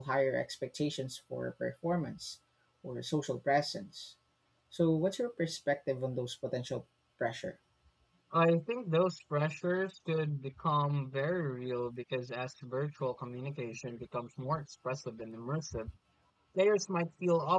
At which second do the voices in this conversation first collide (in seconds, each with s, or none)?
none